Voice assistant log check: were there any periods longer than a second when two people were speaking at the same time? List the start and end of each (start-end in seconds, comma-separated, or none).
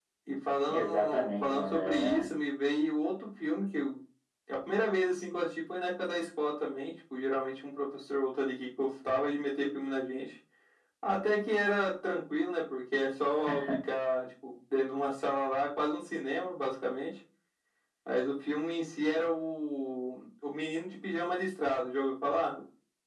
0.7-2.3